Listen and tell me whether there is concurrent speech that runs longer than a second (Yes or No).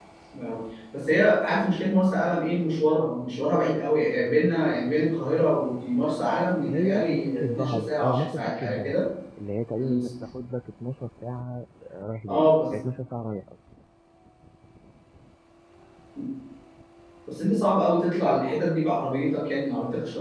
Yes